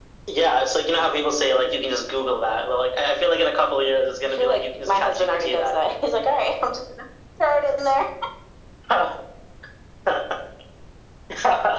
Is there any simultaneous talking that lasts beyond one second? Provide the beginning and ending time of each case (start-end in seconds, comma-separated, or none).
4.2-5.5